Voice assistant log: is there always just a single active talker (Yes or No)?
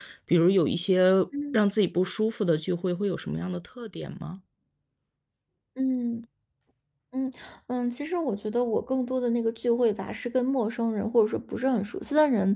Yes